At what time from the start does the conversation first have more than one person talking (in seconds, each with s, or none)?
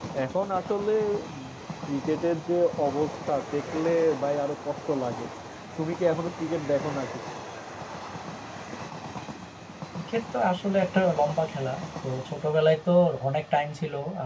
none